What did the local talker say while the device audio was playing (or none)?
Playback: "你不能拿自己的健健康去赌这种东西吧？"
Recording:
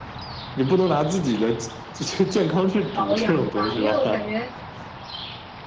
保养吧，因为我感觉，